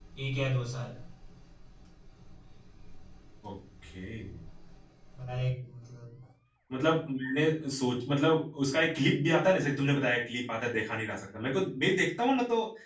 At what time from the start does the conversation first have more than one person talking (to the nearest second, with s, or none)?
none